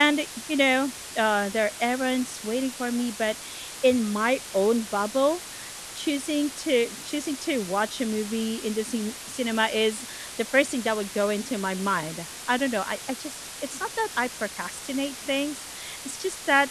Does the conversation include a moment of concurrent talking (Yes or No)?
No